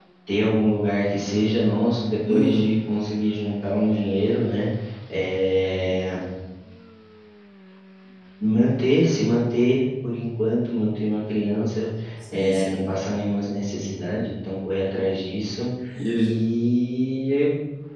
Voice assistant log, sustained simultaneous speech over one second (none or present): none